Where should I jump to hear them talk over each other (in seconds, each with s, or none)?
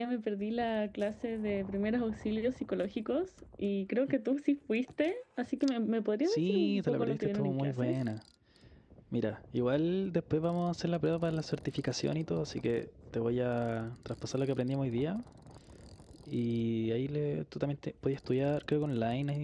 6.2 s